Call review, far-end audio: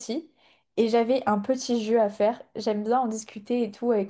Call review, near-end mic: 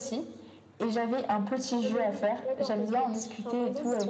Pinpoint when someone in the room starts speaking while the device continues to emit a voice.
2 s

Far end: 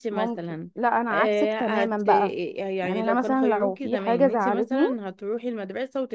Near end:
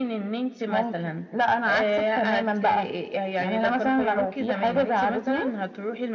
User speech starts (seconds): none

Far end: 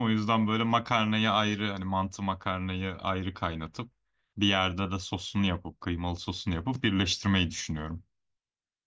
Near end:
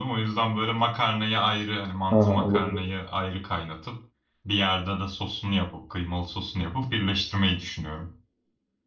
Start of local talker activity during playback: 2 s

